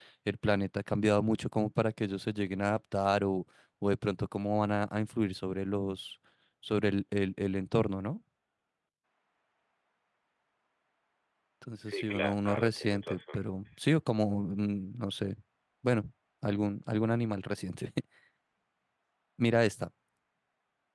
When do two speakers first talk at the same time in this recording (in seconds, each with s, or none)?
11.9 s